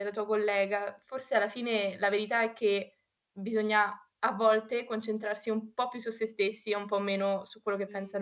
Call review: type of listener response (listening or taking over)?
taking over